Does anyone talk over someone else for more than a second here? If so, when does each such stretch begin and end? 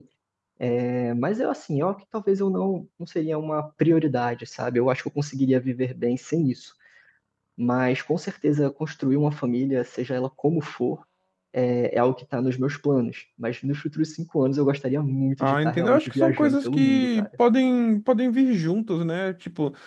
15.4-17.3

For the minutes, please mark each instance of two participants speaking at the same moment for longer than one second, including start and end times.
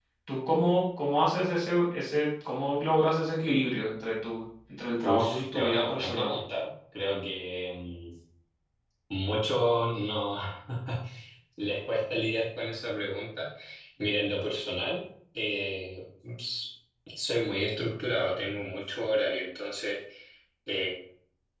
5.0-6.3

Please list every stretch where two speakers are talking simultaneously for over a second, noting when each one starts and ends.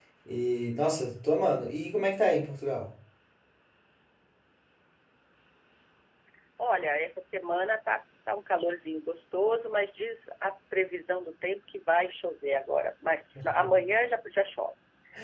none

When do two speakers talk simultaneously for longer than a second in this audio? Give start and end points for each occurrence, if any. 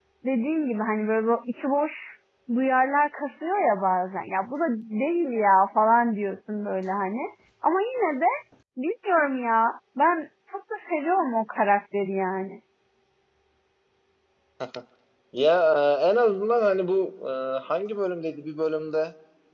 none

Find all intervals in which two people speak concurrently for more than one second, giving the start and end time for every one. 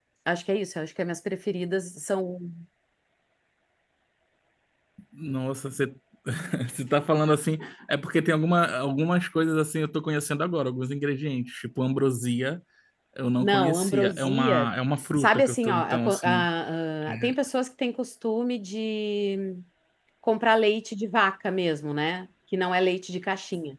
13.4-14.7, 15.2-16.5

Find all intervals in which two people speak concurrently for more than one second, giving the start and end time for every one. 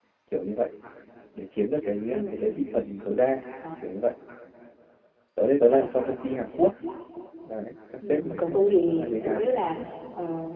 8.1-9.5

